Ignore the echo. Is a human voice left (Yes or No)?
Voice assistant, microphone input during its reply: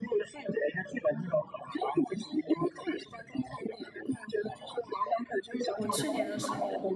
Yes